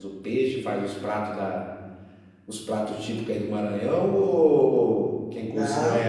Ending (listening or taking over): taking over